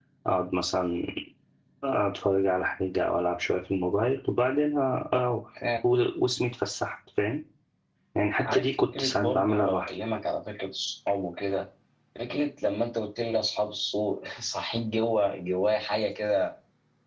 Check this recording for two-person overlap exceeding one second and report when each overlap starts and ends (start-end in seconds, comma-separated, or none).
8.4-9.9